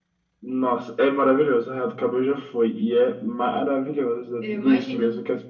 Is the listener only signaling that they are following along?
Yes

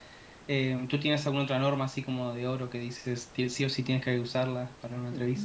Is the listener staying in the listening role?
No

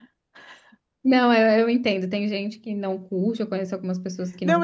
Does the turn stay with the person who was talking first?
No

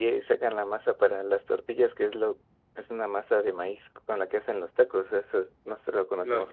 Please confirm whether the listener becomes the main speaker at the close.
Yes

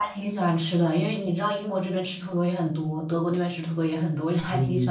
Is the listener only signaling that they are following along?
No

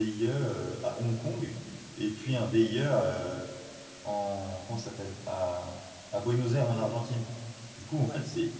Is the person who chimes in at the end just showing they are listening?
Yes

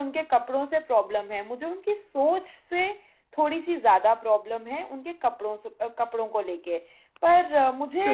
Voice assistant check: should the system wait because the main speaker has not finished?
No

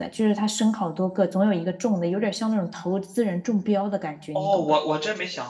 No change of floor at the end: No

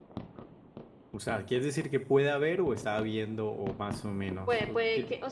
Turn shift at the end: Yes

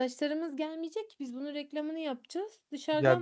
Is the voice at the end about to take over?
Yes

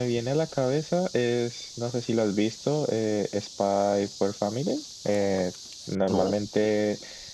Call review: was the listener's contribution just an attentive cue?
Yes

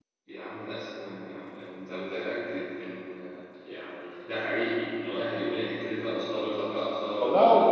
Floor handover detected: Yes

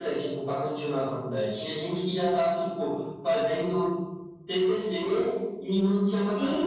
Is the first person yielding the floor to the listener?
No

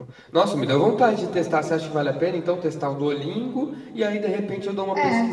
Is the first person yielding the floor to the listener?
No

